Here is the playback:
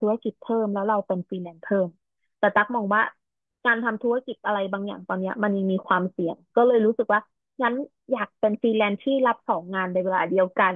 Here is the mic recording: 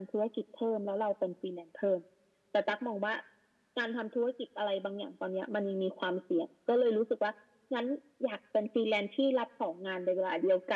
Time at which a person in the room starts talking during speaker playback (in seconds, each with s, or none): none